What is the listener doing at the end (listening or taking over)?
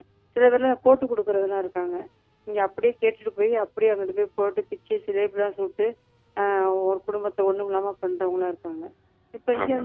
listening